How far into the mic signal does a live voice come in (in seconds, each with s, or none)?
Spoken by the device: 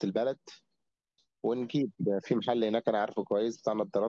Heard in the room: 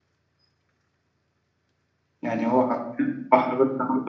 2.2 s